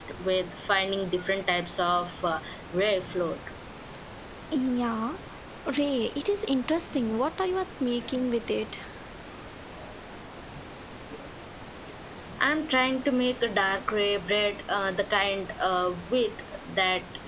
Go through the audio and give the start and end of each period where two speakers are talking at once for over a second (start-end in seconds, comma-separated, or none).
none